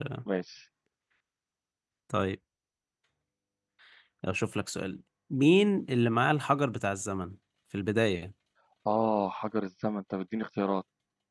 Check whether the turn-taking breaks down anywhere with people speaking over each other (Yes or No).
No